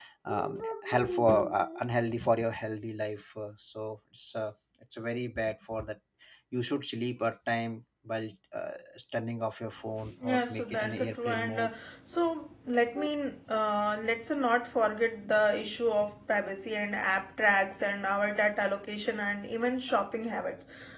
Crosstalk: present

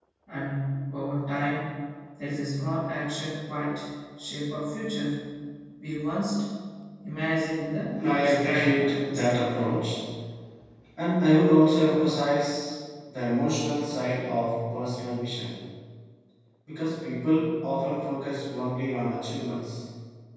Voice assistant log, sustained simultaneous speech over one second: present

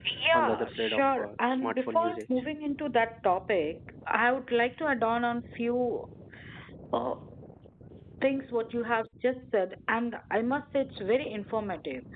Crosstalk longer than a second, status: present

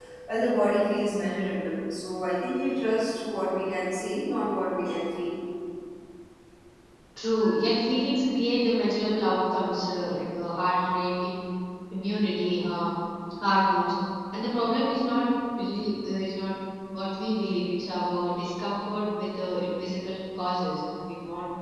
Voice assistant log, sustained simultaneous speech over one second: none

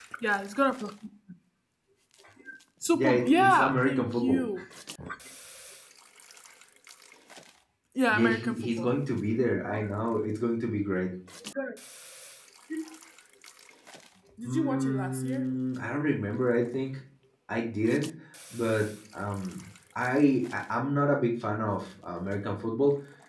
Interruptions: present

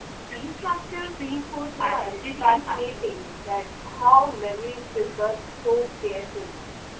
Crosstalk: present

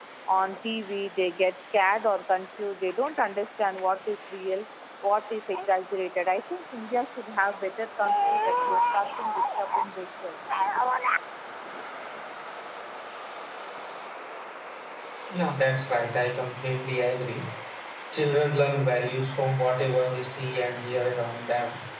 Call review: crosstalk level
none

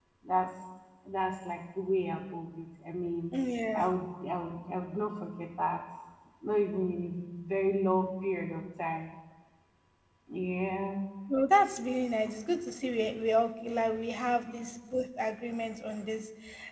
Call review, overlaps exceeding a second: none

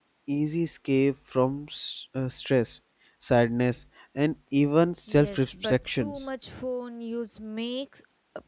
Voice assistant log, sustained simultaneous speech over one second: present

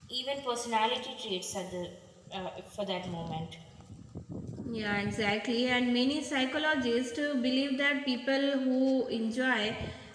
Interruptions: none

